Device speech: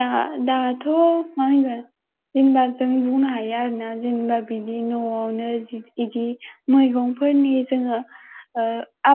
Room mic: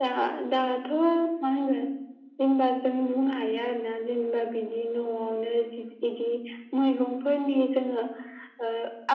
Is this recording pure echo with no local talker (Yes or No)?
Yes